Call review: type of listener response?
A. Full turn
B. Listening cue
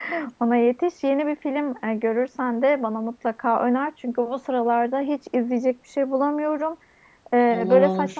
B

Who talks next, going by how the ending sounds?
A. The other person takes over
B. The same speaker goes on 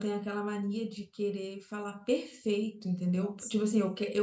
B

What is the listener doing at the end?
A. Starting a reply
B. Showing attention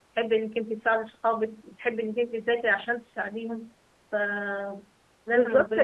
A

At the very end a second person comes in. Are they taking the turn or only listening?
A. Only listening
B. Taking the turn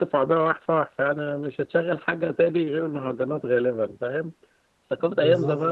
A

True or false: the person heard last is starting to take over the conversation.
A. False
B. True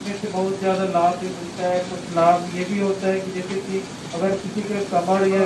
A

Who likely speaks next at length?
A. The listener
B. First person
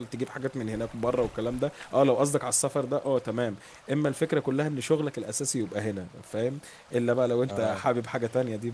B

